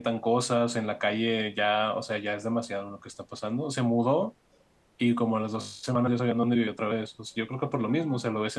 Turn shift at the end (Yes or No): No